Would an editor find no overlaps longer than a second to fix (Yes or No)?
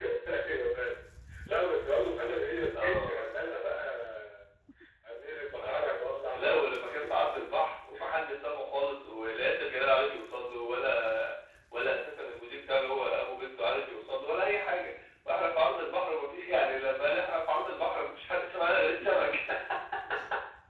Yes